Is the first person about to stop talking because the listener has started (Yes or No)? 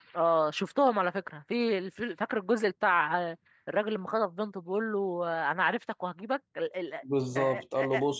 Yes